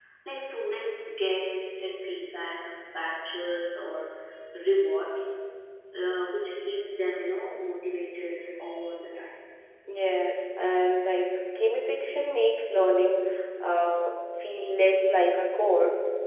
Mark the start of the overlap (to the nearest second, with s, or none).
none